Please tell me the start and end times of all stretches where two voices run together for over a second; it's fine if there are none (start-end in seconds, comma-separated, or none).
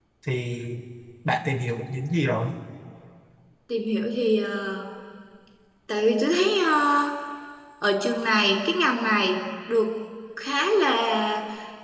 none